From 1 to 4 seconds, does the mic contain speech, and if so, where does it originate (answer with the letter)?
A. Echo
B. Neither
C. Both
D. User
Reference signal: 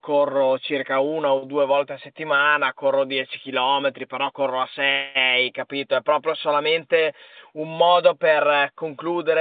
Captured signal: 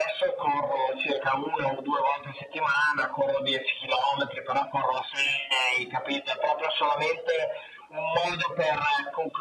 A